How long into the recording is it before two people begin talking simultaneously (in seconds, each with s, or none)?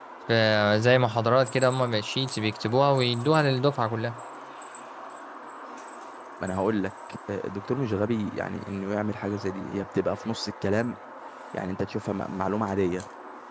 none